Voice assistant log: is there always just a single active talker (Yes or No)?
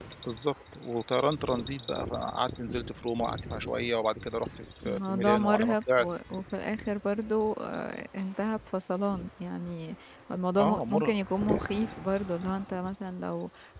No